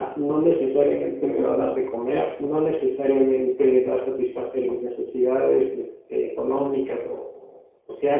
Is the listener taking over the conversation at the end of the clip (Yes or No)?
No